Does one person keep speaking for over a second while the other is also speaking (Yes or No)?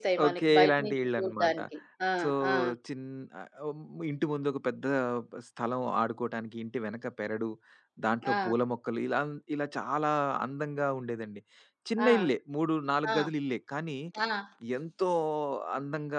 Yes